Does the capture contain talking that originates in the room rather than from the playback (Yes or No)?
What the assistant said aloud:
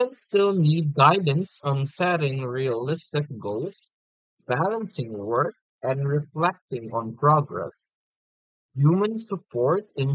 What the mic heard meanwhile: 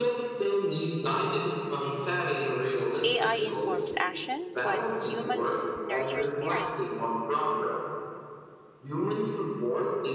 Yes